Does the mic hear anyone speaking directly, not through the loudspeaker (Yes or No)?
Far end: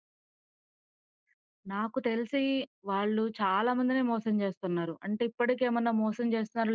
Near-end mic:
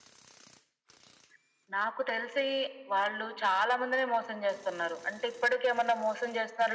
No